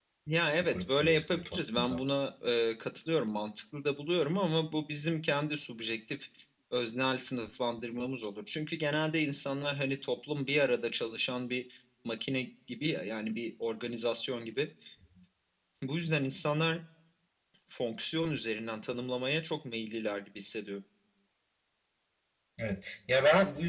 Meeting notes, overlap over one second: present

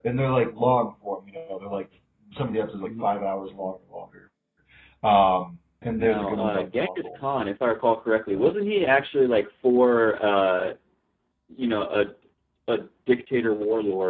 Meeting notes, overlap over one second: present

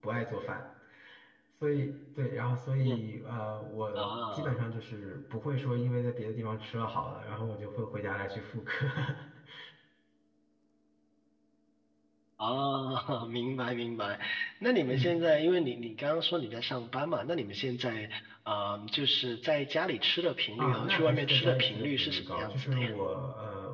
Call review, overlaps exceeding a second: present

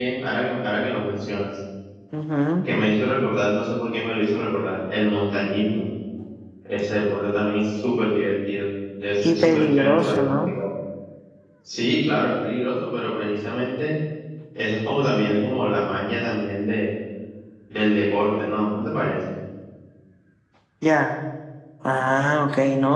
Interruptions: present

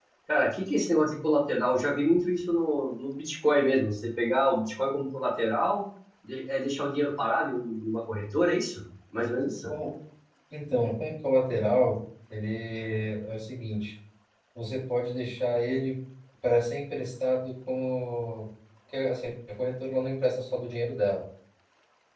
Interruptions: none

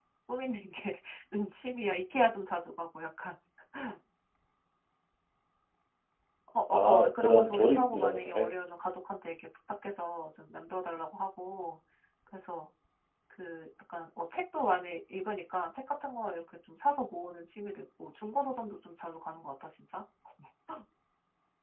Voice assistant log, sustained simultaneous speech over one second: present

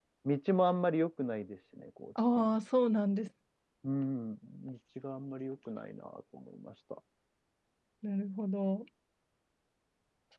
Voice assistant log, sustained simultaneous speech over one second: none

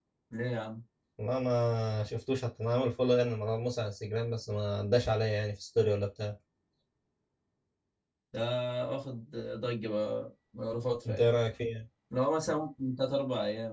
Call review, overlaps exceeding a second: none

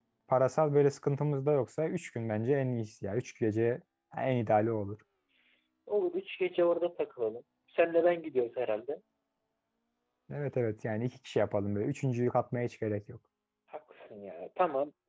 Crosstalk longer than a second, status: none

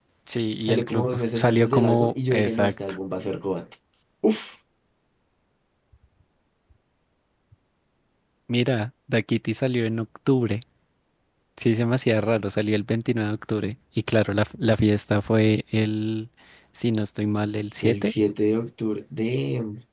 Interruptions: present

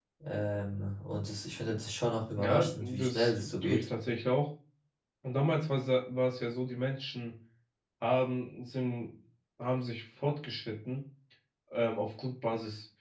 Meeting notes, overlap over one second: present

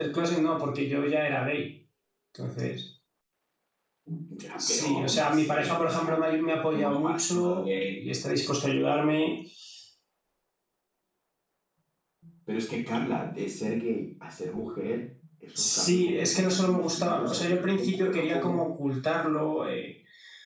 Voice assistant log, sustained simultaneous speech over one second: present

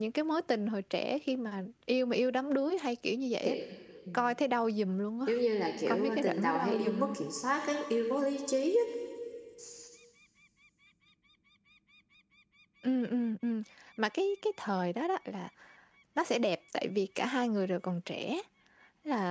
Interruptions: present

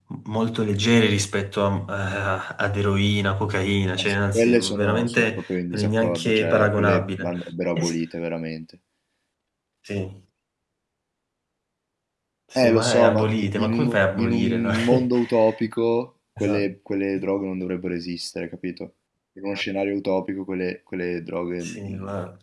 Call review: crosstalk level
present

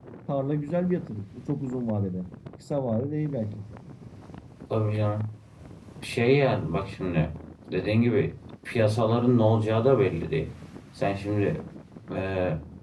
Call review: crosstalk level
none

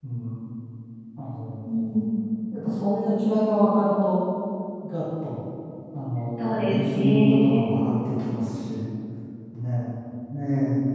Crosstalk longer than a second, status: present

